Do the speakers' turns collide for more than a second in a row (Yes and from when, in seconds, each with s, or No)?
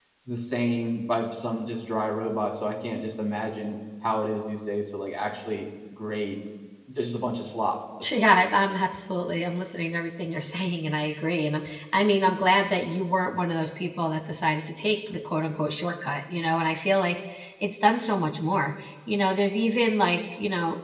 No